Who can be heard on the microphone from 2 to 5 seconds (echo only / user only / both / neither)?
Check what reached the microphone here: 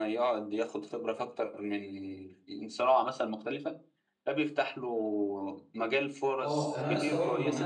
echo only